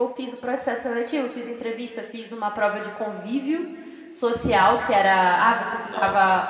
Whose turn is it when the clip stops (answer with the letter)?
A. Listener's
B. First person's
B